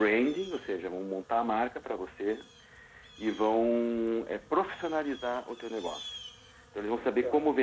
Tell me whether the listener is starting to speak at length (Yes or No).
No